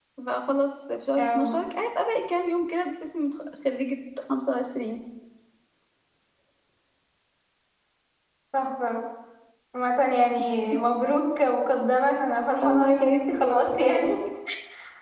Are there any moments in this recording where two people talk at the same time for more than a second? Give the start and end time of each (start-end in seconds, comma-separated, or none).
12.6-14.1